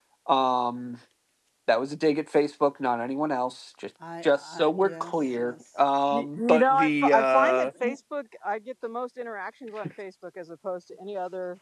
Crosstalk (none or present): present